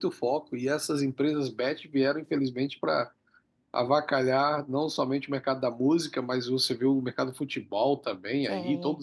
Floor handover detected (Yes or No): No